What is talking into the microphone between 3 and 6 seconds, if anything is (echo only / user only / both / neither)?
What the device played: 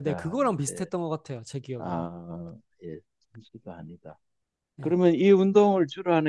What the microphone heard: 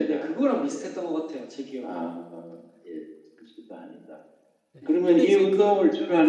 both